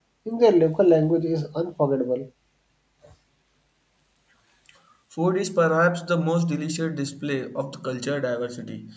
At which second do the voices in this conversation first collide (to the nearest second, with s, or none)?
none